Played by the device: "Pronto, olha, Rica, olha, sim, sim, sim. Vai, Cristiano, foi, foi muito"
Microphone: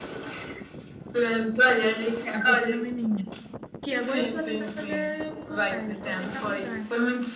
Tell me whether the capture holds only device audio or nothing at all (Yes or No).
No